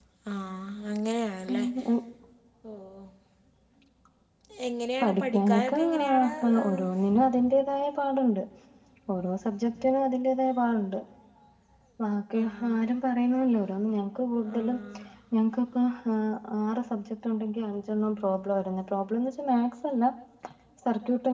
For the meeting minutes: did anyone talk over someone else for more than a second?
Yes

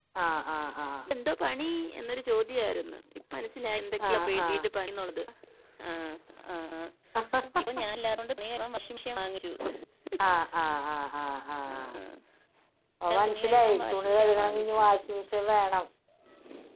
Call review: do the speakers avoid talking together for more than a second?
No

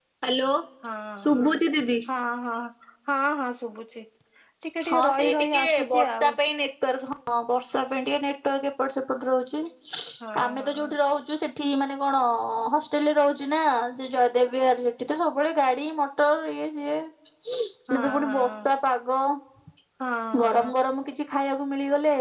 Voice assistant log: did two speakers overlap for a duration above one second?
Yes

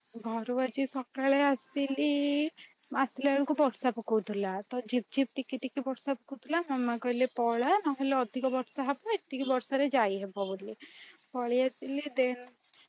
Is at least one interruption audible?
No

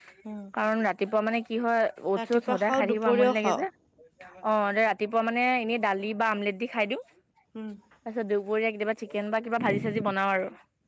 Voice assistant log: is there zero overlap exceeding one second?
No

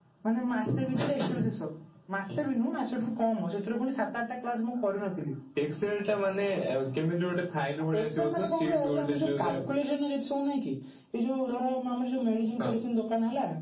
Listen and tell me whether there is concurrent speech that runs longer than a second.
Yes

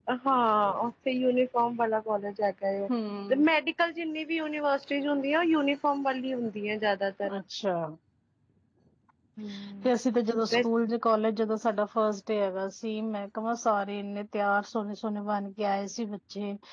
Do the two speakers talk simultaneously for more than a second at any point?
No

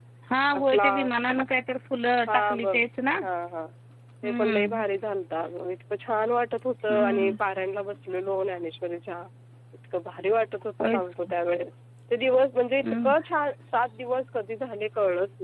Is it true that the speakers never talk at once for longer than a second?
Yes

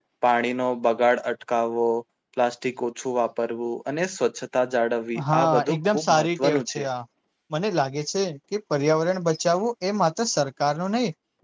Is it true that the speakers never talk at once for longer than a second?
No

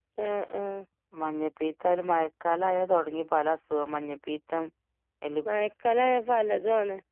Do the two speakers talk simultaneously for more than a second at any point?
No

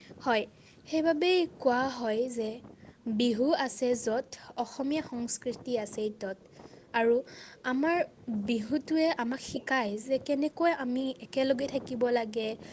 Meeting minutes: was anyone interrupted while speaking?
No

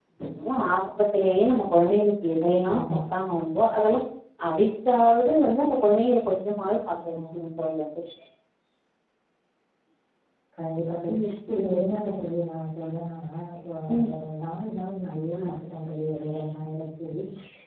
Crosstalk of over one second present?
No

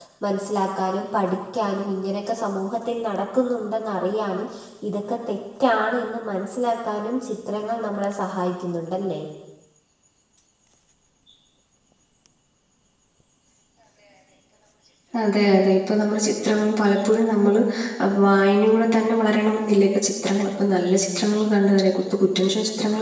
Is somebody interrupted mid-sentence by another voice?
No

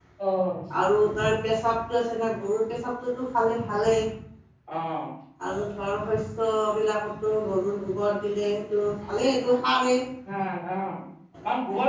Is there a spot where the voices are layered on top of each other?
No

